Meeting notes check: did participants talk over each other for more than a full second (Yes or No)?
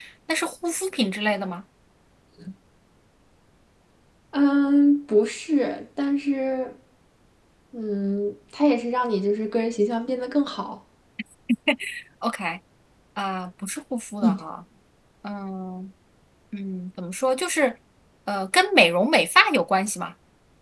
No